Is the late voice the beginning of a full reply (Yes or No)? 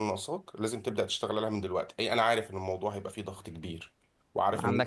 Yes